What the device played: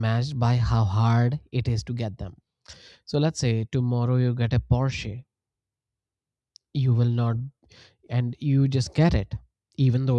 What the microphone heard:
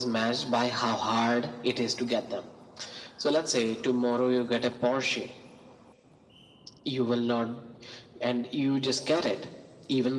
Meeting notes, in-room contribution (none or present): none